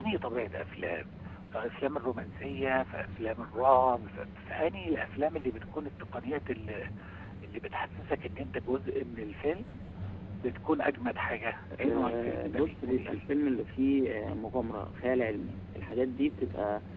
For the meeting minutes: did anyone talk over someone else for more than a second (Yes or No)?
Yes